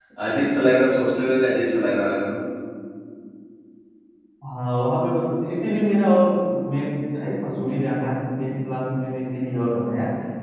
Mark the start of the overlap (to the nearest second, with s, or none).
none